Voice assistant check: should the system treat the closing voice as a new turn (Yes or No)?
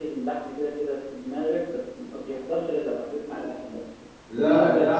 No